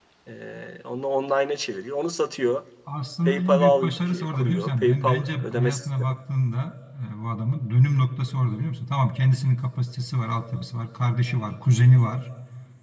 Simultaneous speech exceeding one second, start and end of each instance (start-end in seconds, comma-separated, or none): 3.2-5.9